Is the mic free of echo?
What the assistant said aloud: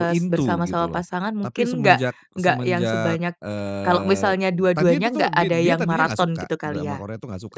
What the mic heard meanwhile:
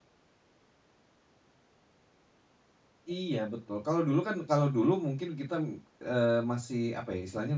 Yes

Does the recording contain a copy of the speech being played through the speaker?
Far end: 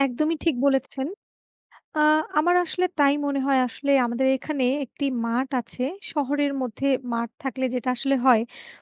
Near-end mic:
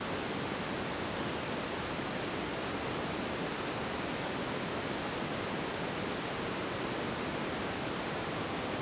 No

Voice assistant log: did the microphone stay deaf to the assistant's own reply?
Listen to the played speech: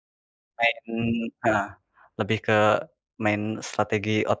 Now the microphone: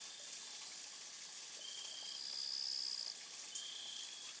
Yes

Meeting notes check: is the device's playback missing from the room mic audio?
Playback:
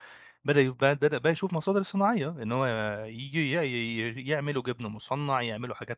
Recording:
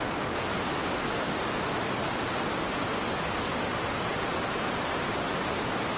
Yes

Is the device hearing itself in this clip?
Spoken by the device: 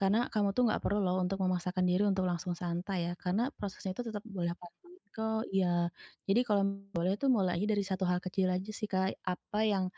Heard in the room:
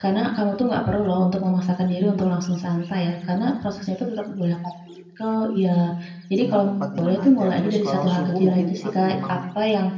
Yes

